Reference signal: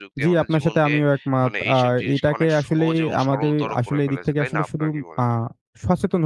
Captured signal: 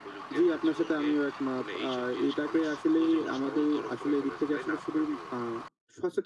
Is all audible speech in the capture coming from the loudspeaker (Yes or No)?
Yes